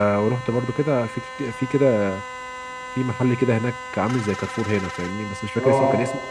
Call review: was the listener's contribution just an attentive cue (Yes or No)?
Yes